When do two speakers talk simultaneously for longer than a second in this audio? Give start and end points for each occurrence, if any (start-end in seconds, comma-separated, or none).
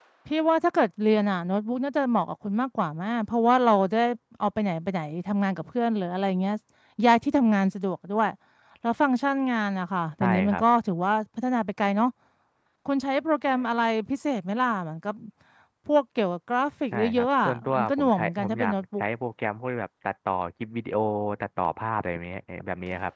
16.9-19.0